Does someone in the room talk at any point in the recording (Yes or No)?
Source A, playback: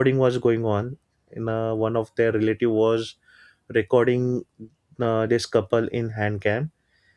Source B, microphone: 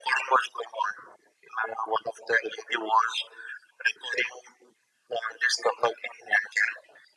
No